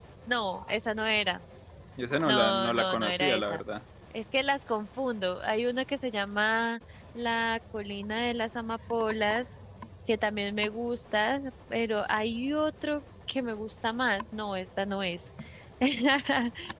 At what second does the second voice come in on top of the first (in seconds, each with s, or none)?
2.3 s